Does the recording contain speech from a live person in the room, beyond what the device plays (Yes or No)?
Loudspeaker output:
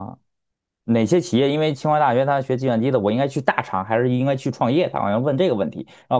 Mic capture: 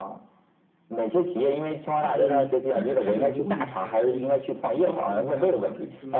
Yes